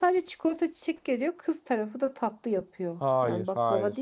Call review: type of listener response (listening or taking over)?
taking over